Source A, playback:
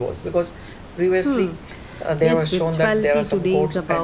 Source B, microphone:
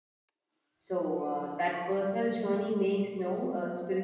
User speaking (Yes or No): Yes